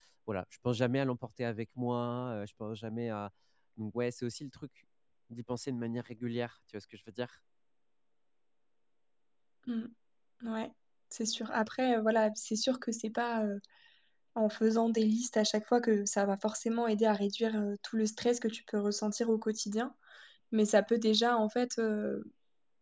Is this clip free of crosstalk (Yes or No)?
Yes